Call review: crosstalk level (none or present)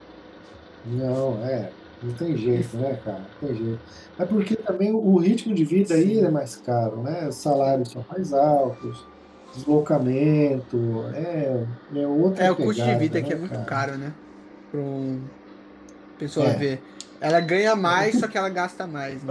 present